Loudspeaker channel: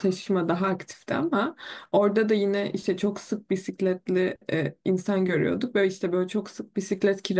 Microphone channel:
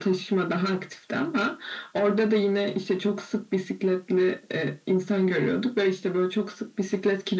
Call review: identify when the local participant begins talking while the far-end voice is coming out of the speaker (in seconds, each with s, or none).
none